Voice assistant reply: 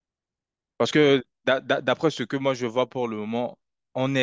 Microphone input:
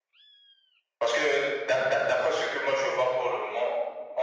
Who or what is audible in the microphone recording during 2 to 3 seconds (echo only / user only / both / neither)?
echo only